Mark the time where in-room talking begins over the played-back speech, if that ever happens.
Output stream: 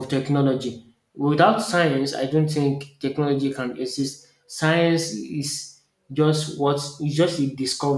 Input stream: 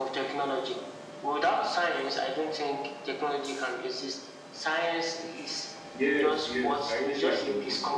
6 s

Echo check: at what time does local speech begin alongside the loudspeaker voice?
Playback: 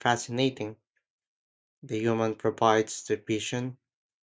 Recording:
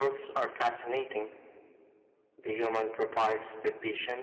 none

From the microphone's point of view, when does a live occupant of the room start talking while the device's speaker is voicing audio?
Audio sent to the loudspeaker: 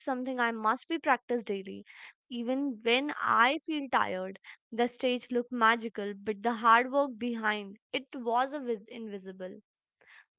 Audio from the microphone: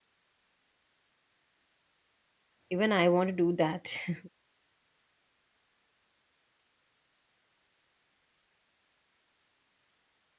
3 s

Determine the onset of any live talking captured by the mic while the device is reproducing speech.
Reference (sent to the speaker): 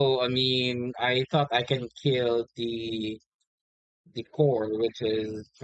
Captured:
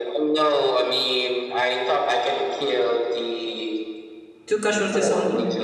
4 s

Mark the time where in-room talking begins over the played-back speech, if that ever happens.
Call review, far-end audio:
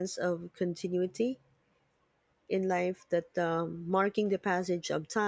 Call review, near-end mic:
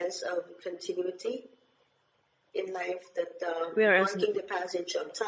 4 s

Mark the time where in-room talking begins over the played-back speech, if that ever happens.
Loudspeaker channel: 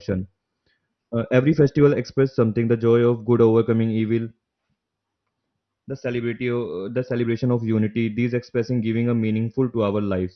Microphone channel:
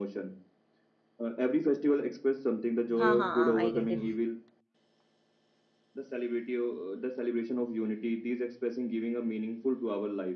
3 s

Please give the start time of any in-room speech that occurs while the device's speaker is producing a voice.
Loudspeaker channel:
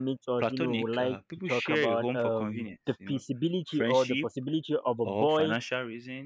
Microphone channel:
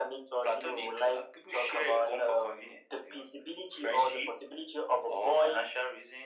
none

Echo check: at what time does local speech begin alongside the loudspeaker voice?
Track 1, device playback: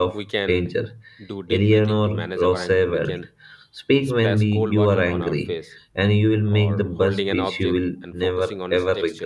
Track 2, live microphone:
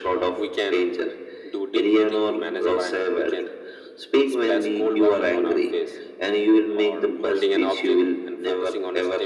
none

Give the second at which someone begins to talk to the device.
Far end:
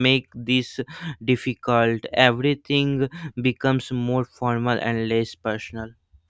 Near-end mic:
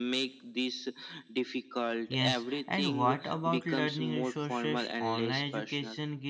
2 s

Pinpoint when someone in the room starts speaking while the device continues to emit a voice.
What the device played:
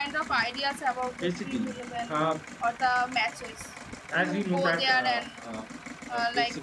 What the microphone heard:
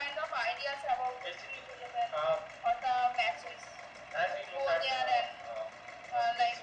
none

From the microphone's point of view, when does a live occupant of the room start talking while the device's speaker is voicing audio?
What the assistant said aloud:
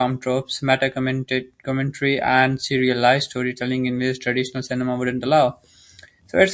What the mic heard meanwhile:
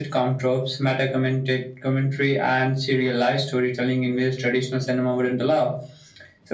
none

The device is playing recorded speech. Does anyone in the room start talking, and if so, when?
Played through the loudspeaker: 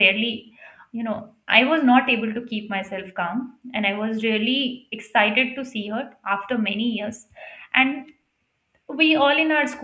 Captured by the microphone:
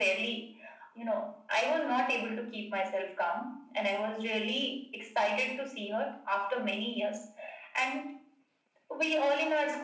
none

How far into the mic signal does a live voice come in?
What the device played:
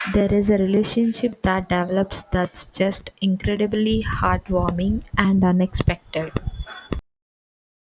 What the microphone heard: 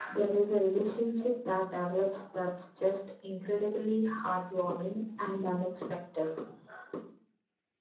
none

